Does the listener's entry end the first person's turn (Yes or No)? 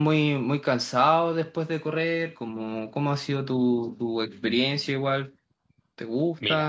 Yes